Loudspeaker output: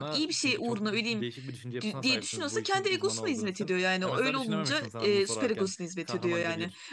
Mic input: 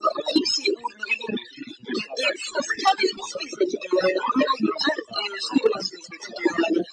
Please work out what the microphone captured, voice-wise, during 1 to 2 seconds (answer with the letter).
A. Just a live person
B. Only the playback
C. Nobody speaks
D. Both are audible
B